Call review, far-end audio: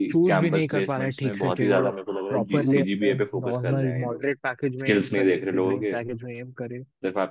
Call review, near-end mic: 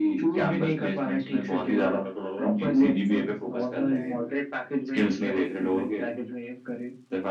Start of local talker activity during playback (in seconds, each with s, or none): none